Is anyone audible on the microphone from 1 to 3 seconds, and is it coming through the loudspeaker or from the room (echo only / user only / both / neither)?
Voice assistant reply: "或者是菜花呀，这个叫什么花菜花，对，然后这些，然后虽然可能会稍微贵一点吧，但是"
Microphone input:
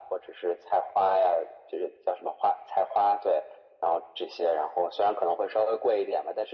echo only